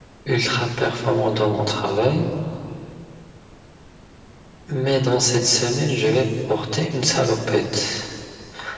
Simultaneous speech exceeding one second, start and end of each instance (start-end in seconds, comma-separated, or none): none